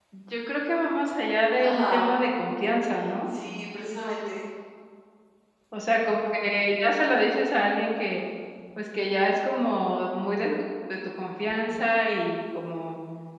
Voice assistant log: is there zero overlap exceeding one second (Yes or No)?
Yes